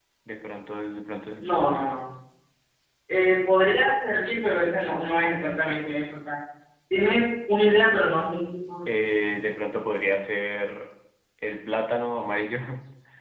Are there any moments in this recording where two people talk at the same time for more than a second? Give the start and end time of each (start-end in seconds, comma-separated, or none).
none